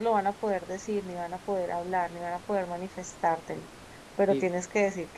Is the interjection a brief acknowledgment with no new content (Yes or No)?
Yes